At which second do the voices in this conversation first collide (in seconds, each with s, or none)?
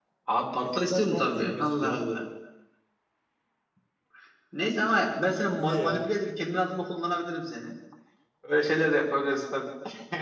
0.6 s